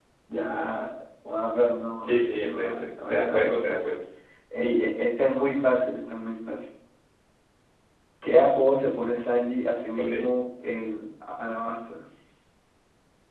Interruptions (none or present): present